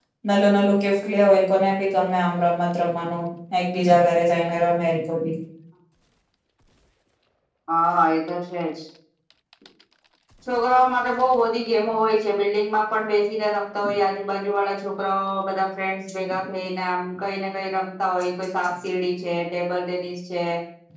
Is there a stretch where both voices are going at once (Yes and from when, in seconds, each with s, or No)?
No